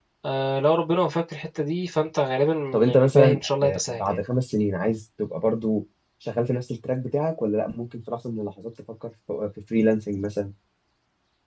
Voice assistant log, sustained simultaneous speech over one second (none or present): present